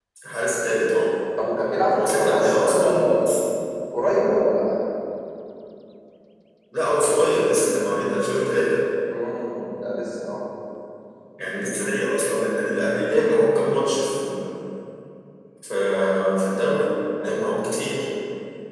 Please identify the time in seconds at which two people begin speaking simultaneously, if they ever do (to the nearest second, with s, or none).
2 s